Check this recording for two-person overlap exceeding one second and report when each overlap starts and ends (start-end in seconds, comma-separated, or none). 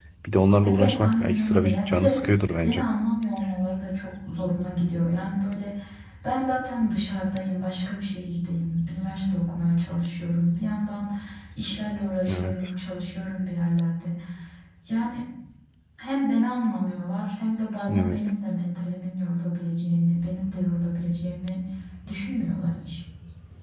0.8-2.2